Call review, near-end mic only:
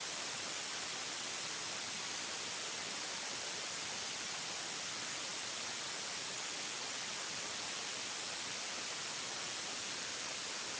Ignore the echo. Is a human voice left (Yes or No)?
No